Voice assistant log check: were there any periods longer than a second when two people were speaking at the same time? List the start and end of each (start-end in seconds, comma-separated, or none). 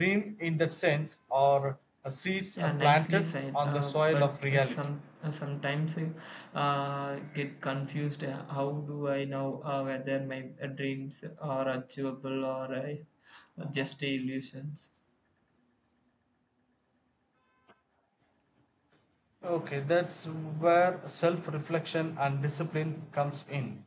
2.5-4.8